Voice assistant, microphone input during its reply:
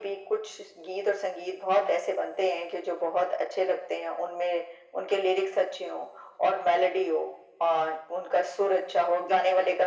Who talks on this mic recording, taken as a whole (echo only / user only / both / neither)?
echo only